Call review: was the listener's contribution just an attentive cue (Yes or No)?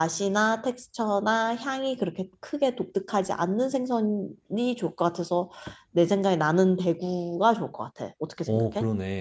No